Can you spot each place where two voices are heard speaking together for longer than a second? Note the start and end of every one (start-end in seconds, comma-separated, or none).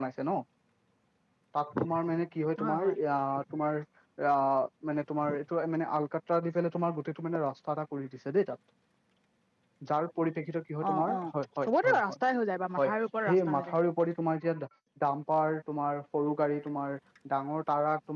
none